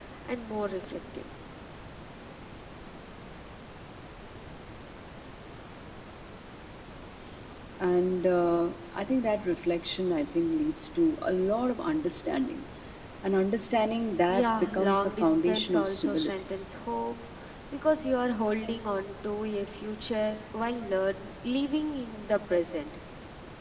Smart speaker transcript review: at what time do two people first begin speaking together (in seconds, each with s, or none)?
14.3 s